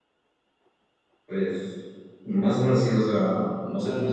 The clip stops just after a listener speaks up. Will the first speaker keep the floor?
No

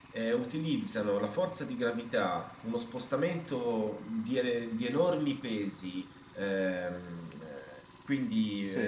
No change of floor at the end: Yes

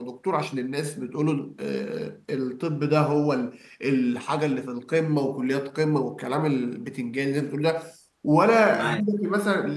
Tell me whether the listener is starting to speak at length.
No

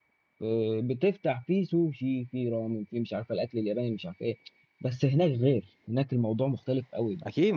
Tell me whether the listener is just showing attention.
No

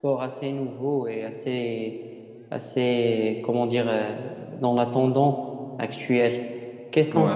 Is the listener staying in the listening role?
Yes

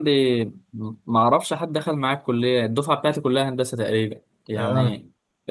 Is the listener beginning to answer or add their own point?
No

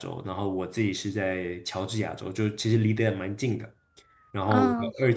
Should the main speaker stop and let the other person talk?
No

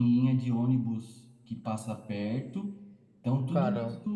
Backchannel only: Yes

